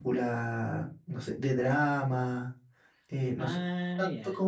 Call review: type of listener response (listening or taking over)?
listening